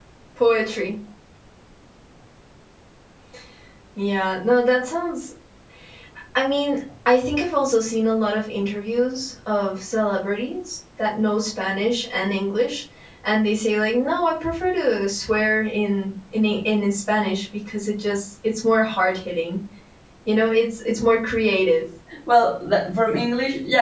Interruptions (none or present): none